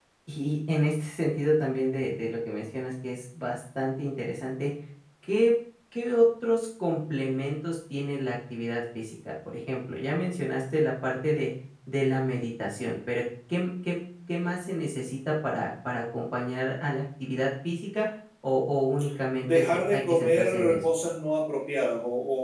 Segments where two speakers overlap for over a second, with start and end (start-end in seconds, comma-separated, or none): 19.4-20.8